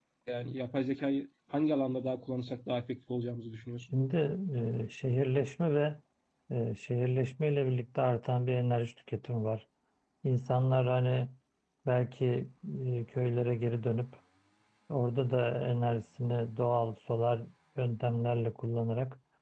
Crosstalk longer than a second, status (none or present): none